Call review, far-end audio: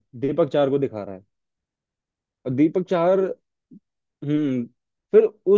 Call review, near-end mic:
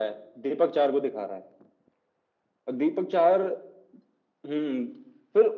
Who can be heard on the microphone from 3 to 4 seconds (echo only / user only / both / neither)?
echo only